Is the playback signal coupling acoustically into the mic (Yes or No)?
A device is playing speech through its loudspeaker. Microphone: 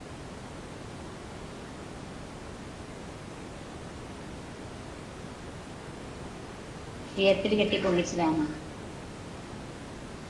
No